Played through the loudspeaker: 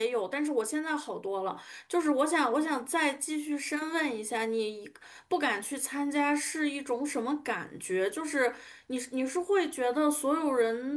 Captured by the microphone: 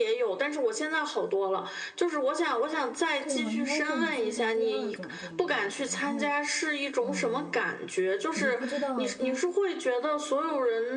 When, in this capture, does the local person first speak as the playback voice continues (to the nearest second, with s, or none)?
3 s